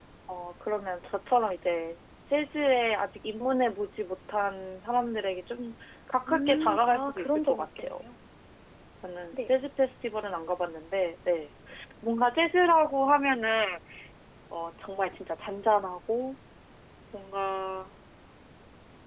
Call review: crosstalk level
present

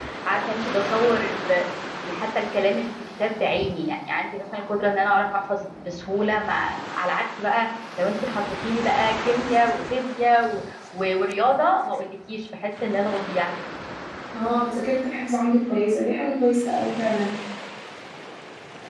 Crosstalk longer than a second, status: none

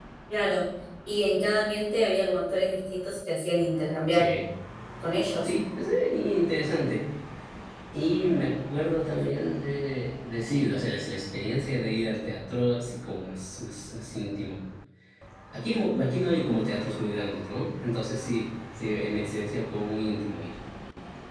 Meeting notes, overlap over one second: none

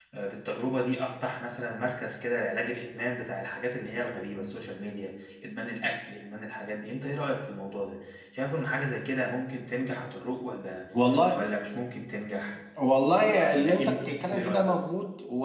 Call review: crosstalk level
present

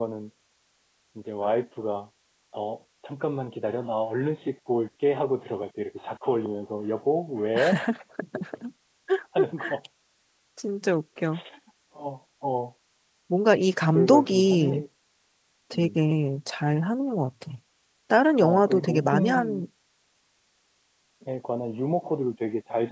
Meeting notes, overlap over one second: present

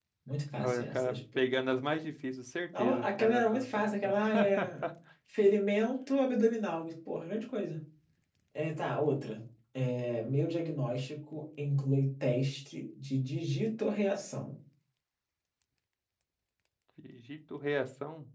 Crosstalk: present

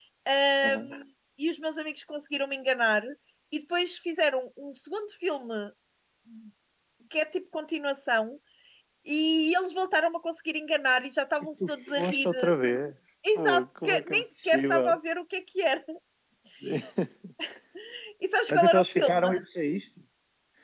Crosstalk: present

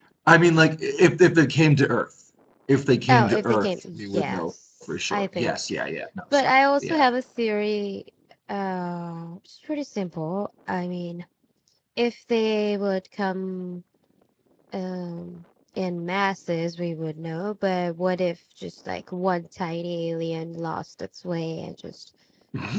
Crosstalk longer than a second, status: present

